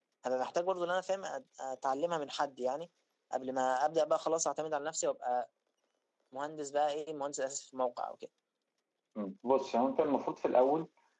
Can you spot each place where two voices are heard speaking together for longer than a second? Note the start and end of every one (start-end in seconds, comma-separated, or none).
none